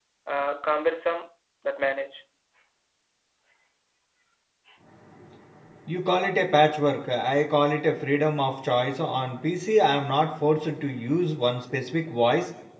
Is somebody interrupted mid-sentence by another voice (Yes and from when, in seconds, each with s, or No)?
No